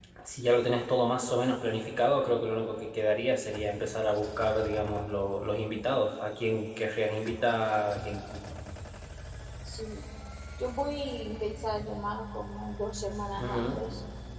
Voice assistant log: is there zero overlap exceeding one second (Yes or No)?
Yes